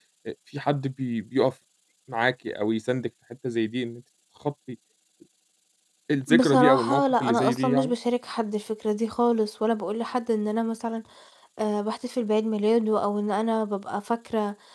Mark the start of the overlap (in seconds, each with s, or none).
6.4 s